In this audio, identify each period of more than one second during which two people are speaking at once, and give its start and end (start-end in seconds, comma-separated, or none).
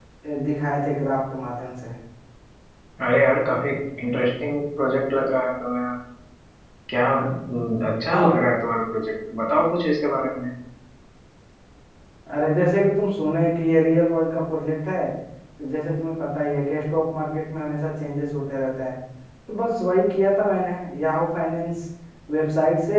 none